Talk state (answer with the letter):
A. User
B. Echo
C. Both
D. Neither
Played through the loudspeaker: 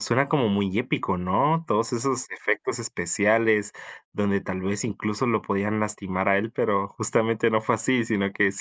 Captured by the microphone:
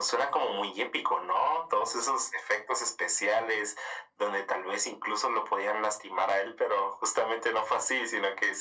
B